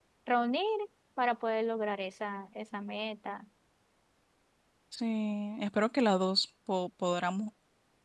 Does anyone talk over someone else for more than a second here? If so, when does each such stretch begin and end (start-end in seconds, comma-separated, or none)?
none